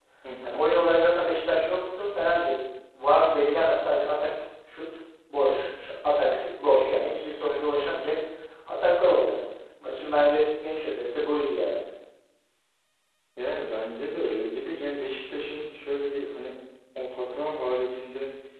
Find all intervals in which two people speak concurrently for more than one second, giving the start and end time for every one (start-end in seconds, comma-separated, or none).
none